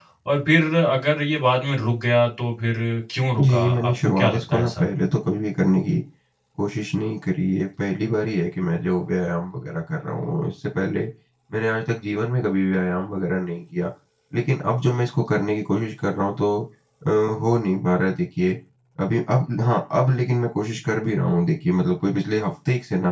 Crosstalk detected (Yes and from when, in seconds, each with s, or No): Yes, from 3.4 s